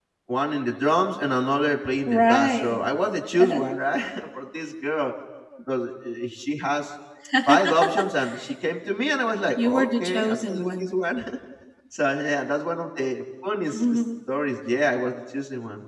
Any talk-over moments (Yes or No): Yes